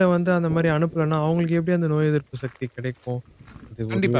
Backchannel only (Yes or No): Yes